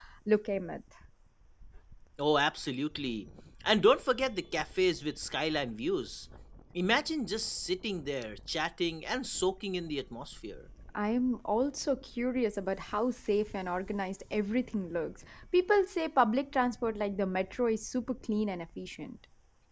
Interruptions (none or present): none